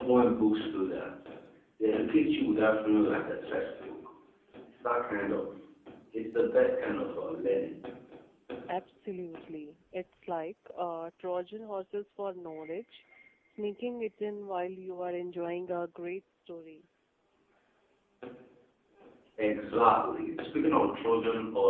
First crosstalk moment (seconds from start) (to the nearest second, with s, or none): none